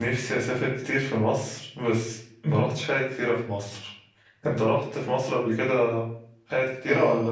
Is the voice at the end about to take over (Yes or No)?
Yes